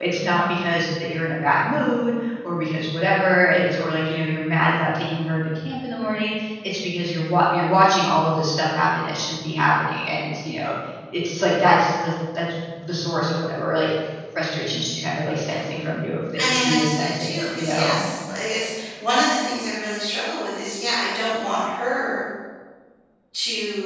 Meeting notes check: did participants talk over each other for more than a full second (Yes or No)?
Yes